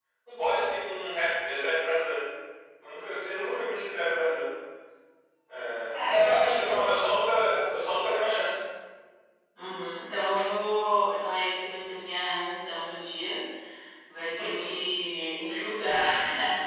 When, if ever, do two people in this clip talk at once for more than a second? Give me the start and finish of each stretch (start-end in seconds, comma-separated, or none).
5.9-7.9